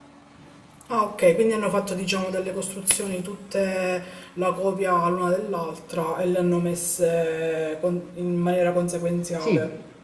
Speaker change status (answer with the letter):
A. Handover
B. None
A